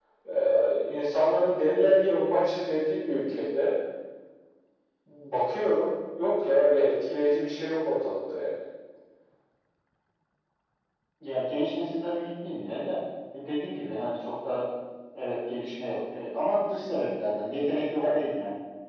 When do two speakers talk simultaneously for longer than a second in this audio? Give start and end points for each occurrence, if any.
none

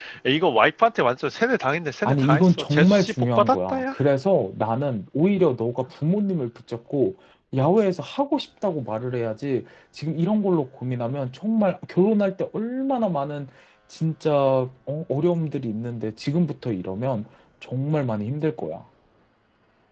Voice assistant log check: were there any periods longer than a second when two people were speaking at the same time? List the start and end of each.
2.0-3.9

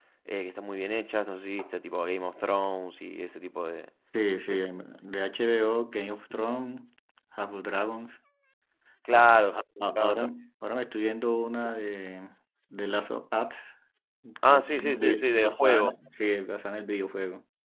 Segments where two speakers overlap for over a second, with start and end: 14.5-15.9

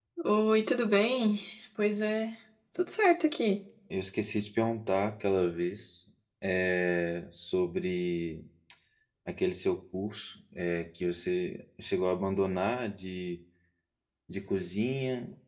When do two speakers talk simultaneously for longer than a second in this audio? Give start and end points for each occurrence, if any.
none

